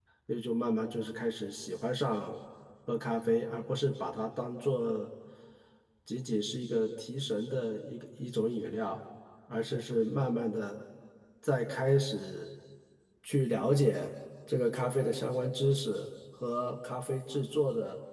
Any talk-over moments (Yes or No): No